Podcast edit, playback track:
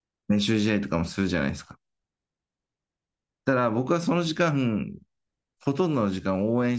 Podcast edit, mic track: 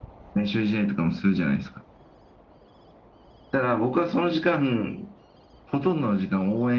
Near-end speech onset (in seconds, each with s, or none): none